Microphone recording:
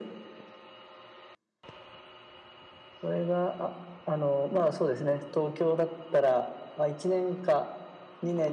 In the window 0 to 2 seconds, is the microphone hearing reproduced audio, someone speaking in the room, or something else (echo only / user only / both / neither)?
neither